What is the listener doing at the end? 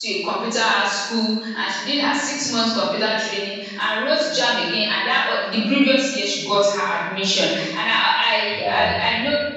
listening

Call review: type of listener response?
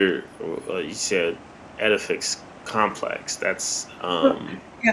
taking over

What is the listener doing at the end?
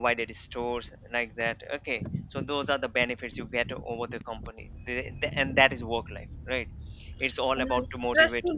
taking over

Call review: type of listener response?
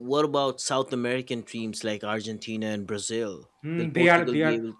taking over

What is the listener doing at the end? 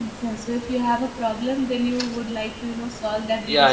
taking over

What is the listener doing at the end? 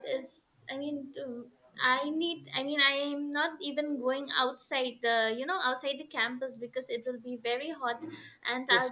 taking over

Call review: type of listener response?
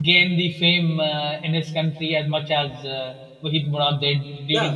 taking over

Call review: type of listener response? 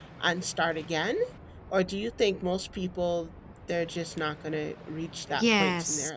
taking over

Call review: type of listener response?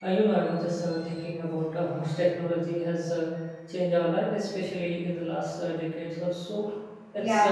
taking over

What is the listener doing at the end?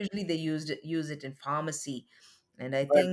taking over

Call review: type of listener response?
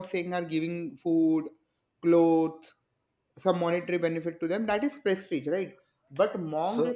listening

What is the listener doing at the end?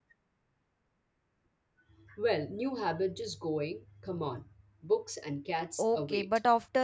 taking over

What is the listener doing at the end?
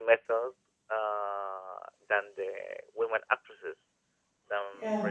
listening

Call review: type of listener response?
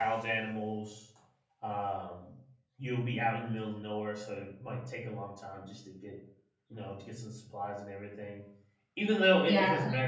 listening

